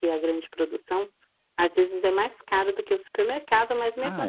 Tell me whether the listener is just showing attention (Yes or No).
Yes